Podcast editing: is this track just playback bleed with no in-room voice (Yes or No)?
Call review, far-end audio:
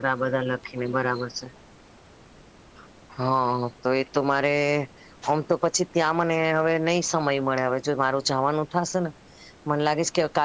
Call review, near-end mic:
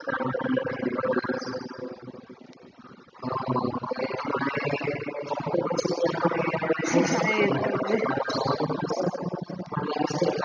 No